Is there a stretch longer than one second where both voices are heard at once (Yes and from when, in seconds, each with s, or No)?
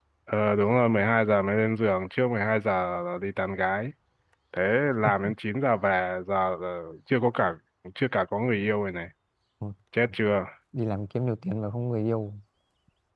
No